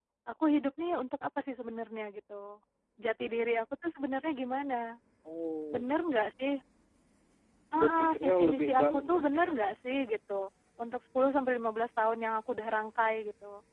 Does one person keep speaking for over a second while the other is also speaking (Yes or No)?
Yes